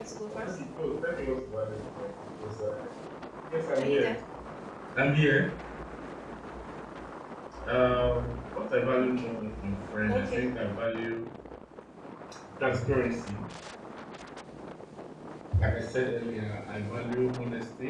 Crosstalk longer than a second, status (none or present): none